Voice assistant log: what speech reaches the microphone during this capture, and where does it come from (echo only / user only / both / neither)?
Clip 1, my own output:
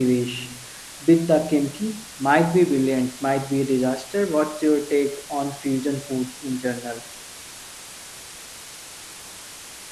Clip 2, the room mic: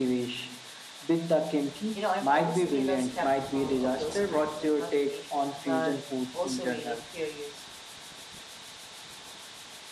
both